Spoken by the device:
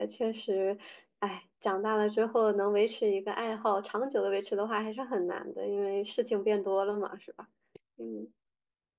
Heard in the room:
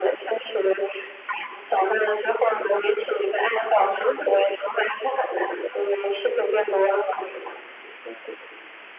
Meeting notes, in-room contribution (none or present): none